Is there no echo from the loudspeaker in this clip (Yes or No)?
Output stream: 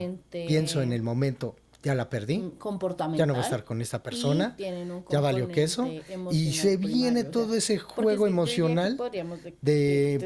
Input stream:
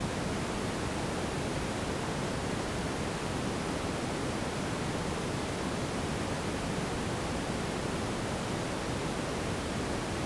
Yes